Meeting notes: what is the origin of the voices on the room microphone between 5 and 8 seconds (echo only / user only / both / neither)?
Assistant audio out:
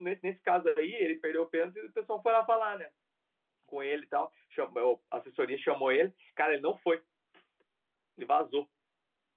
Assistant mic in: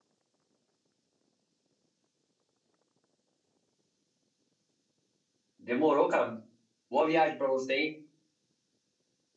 user only